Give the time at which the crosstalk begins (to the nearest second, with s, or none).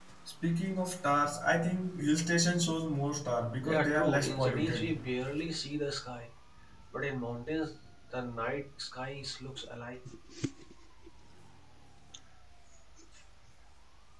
4 s